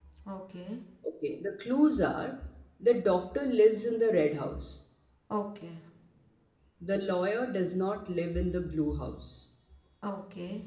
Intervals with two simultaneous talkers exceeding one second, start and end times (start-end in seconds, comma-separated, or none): none